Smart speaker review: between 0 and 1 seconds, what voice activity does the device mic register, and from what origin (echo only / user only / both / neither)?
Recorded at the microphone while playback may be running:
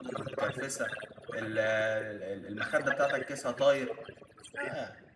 both